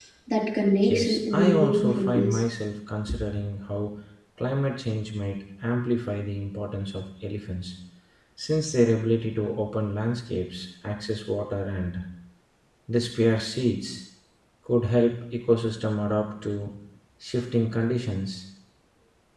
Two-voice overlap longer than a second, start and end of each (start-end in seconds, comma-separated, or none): 0.9-2.4